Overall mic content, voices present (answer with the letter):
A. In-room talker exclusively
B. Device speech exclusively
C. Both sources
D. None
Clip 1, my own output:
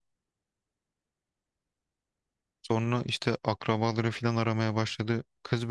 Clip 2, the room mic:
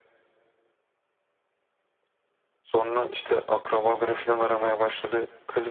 B